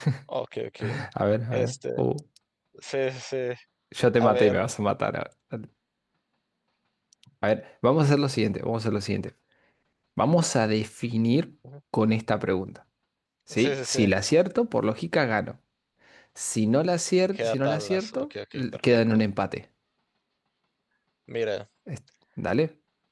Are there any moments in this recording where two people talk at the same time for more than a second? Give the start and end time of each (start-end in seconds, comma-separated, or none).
17.4-19.2